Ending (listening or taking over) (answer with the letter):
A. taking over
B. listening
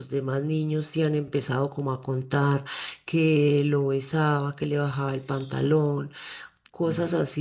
B